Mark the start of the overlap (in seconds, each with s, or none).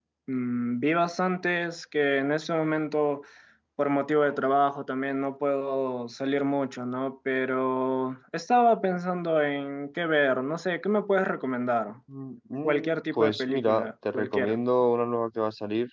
12.6 s